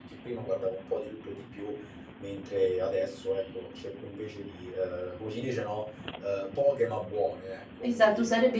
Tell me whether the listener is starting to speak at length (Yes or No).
Yes